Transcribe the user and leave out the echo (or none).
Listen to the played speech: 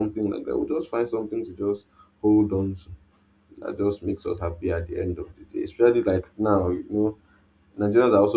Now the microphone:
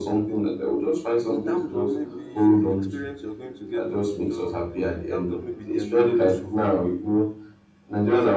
In terms of maybe experience you're going to get on the job, in terms of maybe the enumeration,